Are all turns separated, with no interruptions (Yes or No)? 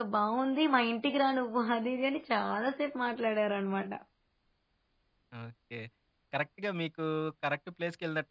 Yes